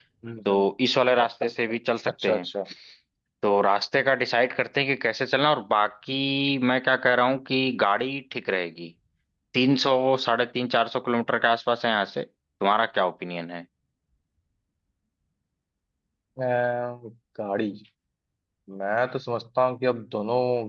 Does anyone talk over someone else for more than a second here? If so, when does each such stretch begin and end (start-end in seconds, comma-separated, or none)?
none